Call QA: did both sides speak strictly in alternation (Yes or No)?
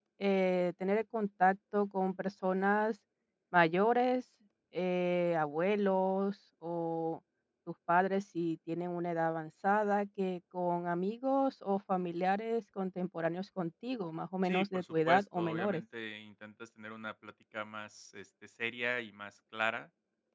No